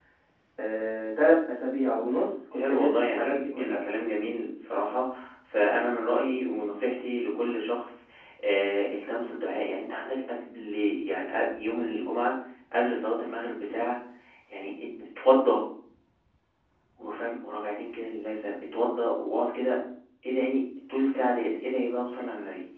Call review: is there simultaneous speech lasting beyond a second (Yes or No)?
Yes